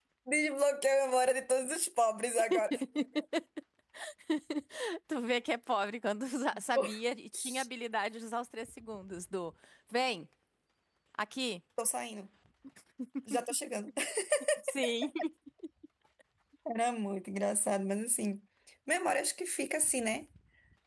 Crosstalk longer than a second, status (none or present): none